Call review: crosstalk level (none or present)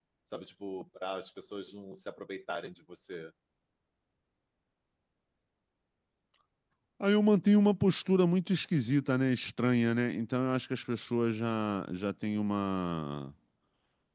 none